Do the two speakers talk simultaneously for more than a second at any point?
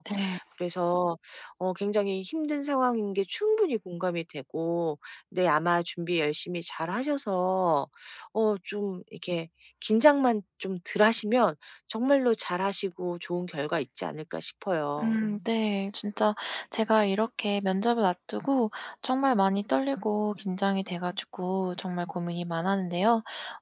No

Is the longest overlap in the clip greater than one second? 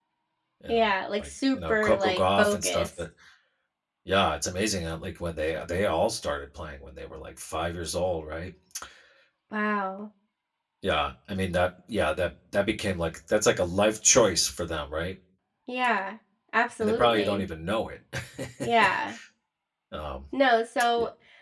Yes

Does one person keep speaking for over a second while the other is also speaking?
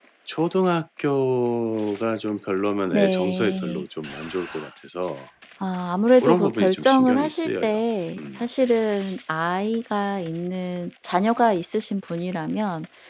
Yes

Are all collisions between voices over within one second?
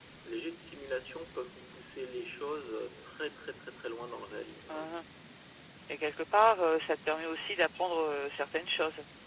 Yes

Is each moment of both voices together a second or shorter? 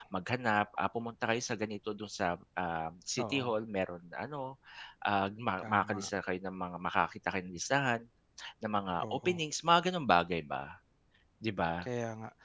Yes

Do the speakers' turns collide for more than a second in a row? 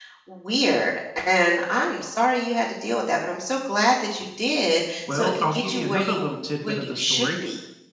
Yes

